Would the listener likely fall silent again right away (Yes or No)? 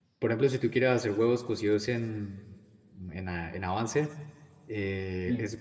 Yes